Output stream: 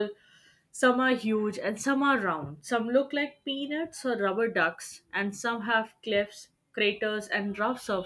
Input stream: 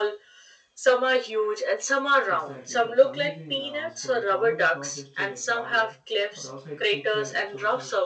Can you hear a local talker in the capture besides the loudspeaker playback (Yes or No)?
Yes